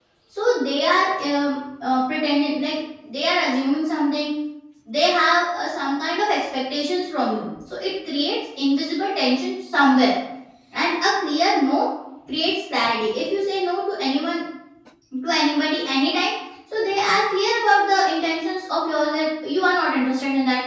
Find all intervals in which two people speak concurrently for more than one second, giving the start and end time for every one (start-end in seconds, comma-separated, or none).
none